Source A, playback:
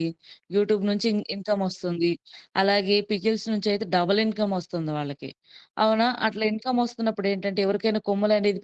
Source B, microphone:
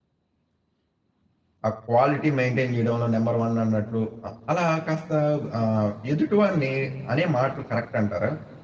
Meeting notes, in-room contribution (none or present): present